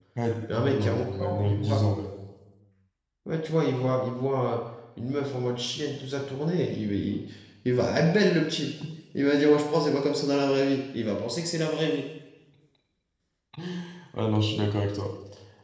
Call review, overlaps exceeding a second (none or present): present